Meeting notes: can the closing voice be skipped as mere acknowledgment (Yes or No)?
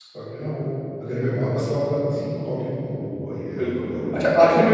No